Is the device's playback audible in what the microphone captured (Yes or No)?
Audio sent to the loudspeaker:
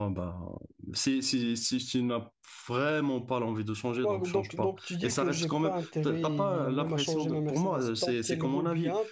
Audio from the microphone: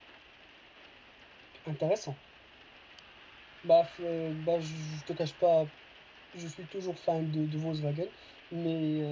No